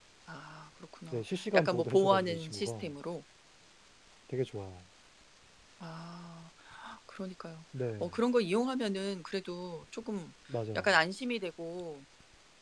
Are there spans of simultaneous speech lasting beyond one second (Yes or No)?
Yes